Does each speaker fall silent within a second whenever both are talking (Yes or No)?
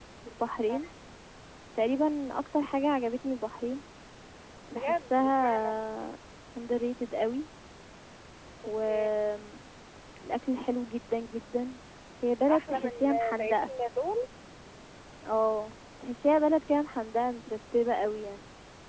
No